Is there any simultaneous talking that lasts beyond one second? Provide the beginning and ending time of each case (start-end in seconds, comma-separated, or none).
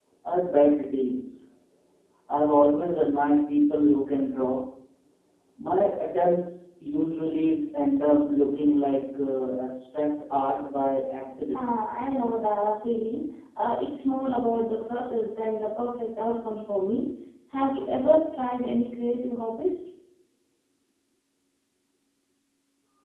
none